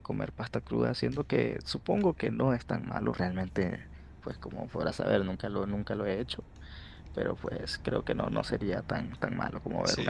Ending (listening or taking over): taking over